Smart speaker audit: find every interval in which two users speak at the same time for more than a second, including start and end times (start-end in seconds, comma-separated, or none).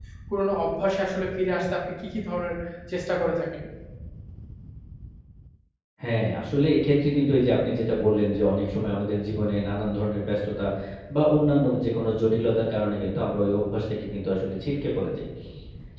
none